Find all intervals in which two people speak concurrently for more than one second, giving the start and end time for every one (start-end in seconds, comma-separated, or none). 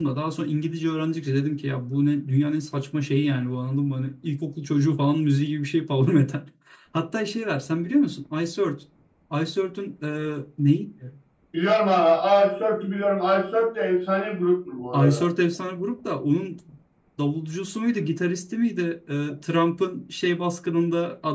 none